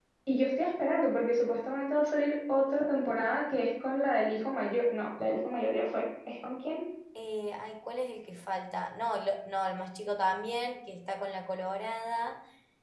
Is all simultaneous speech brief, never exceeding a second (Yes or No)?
Yes